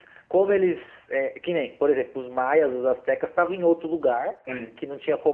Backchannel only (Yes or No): Yes